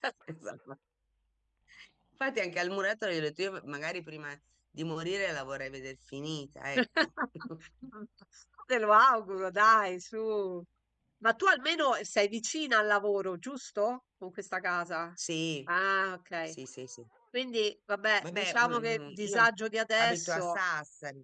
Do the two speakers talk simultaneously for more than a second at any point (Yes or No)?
Yes